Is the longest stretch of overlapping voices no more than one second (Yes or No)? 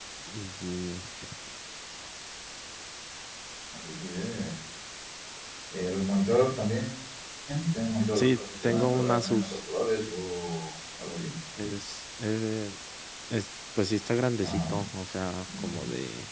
No